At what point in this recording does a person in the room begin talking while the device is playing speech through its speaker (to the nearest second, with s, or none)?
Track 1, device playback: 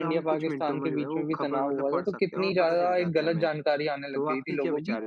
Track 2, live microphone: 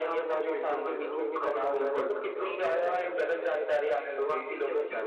2 s